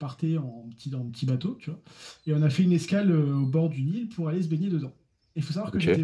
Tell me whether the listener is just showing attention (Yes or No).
Yes